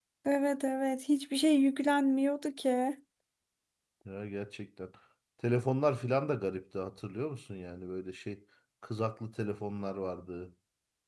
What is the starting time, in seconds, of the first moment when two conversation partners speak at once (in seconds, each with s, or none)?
none